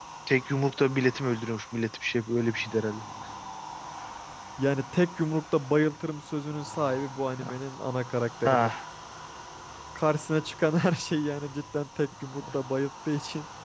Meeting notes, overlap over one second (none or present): none